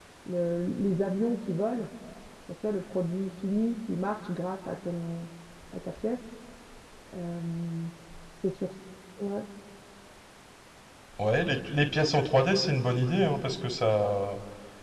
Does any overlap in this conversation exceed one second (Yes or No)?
No